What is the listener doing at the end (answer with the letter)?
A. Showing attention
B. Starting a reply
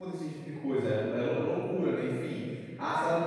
A